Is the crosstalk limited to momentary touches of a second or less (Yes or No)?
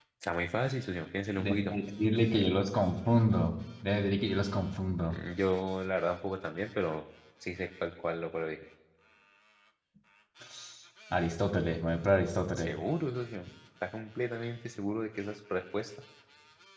Yes